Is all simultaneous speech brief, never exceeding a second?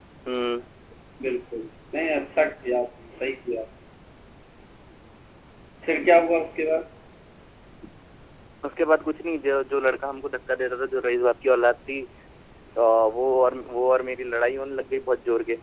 Yes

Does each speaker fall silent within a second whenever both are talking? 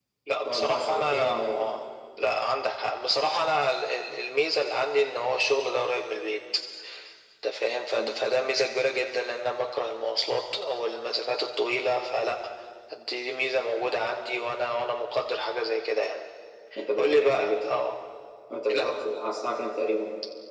No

